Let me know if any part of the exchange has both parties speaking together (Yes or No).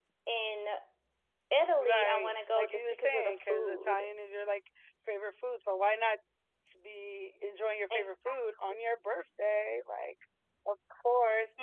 Yes